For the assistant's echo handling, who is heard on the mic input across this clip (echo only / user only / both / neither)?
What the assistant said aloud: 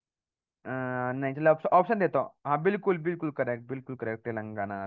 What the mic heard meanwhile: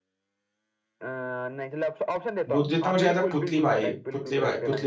both